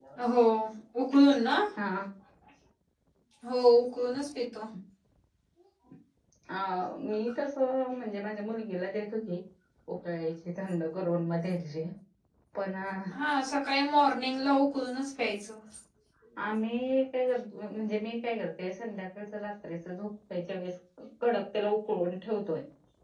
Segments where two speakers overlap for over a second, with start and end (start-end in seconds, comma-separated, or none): none